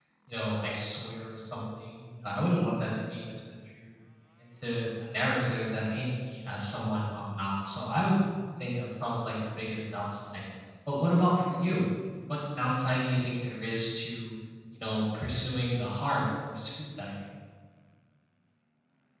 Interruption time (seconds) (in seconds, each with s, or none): none